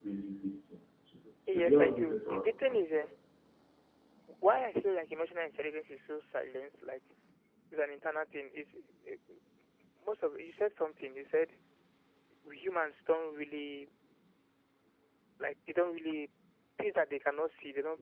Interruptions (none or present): present